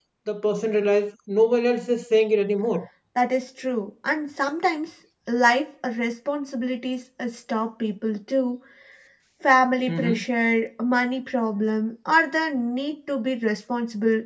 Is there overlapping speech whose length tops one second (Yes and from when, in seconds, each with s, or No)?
No